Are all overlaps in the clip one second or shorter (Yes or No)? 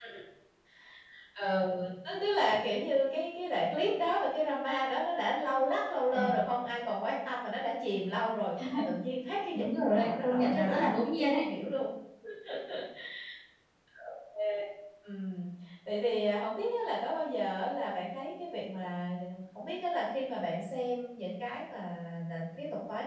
No